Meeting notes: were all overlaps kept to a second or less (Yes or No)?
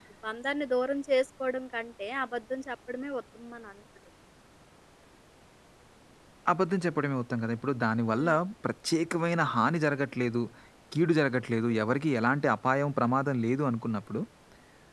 Yes